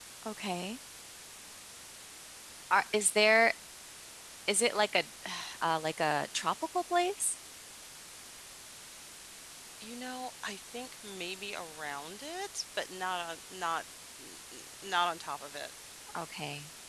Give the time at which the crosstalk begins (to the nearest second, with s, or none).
none